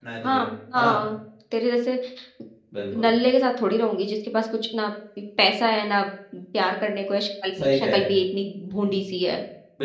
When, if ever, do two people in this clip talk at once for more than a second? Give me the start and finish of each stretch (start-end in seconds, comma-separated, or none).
none